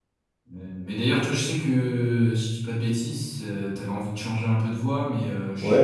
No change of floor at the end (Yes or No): No